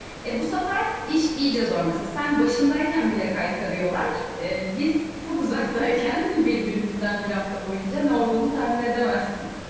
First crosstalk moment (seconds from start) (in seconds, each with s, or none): none